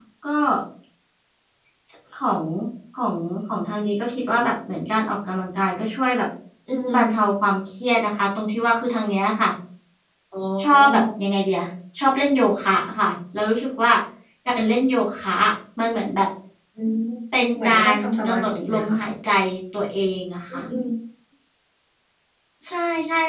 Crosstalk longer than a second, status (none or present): present